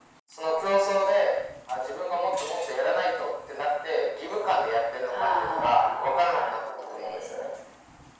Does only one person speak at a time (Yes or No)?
No